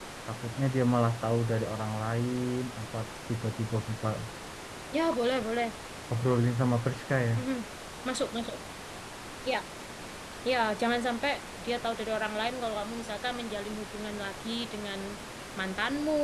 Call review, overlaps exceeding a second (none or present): none